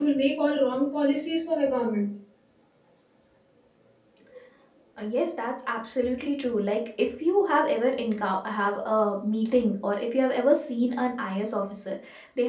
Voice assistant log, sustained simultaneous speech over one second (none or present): none